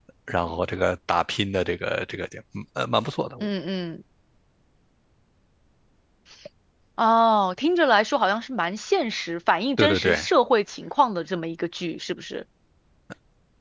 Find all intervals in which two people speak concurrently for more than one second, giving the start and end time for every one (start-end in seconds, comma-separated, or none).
none